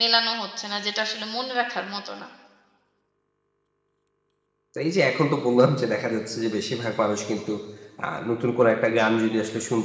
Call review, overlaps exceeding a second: none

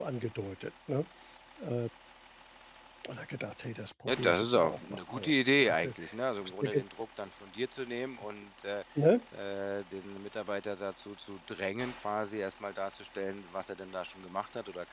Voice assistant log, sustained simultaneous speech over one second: present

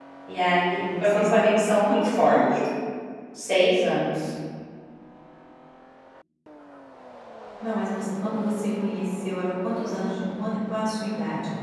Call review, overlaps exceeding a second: present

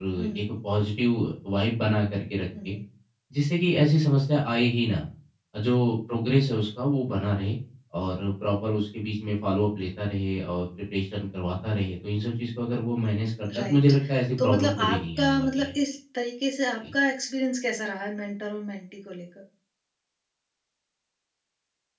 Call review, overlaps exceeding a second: present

